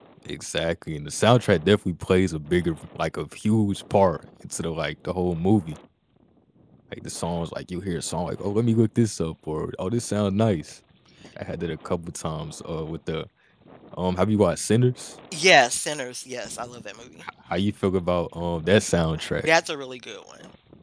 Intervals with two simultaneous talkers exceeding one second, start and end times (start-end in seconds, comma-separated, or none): none